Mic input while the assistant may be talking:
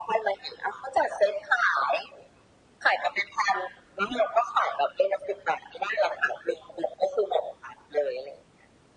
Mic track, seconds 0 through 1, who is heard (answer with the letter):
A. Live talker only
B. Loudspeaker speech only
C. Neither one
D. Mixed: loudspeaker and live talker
B